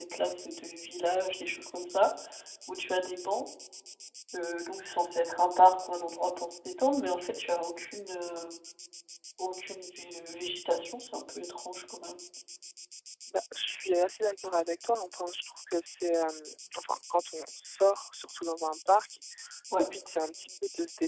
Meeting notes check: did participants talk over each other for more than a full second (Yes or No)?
No